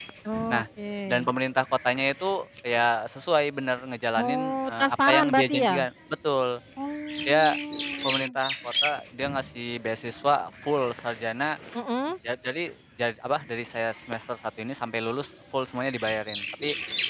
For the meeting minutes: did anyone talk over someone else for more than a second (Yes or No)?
Yes